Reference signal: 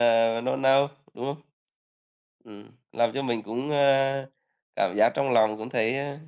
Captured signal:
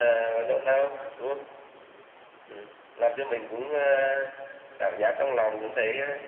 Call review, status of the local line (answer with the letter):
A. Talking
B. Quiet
B